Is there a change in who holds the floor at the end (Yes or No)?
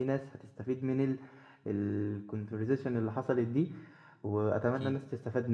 No